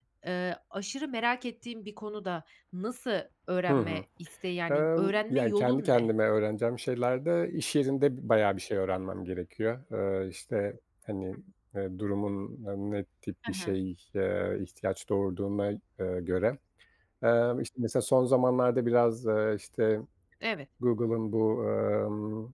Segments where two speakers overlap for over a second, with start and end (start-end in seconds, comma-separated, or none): 4.7-6.1